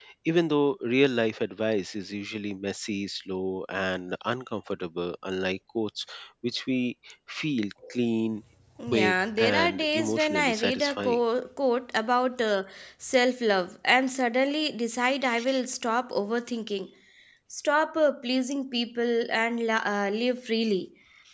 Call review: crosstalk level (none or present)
present